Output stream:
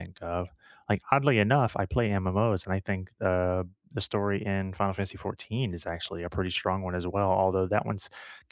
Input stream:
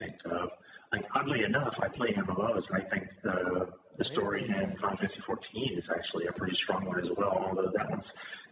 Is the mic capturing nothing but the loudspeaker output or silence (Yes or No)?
No